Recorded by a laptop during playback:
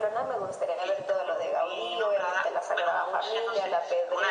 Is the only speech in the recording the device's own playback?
Yes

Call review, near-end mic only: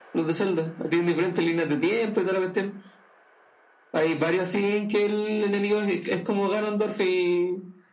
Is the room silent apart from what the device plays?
Yes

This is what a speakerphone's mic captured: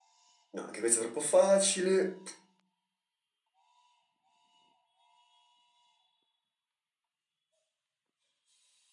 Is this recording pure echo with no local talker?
No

